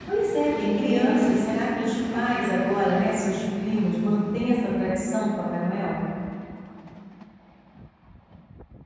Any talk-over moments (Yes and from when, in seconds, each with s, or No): Yes, from 0.5 s